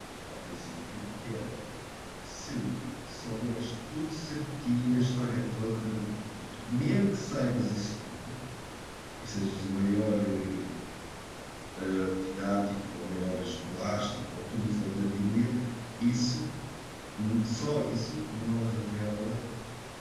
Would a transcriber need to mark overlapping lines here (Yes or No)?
No